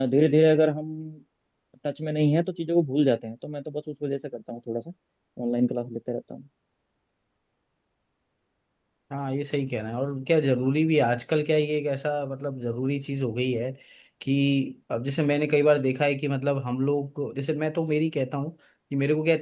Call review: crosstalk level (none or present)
none